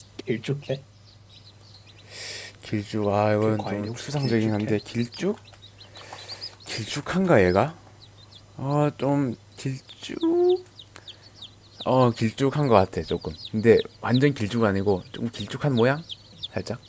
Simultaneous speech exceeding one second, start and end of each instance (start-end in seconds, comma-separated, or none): 3.4-4.8